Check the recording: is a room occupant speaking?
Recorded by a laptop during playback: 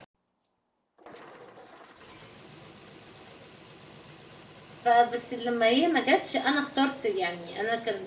Yes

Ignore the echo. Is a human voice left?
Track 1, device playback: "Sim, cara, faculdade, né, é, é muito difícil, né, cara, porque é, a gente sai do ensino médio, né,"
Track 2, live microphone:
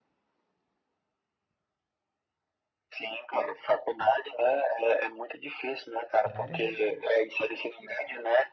Yes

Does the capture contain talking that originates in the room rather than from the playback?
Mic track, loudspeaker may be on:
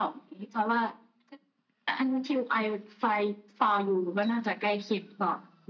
No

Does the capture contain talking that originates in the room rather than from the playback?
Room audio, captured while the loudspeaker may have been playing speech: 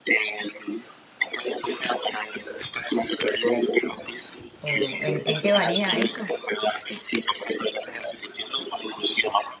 Yes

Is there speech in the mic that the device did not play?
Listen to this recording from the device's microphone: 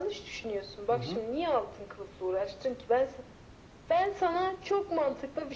Yes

